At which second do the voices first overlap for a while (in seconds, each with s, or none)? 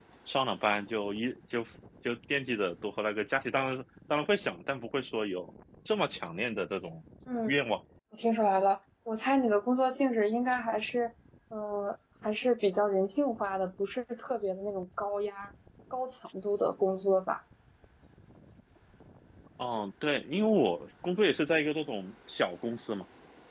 none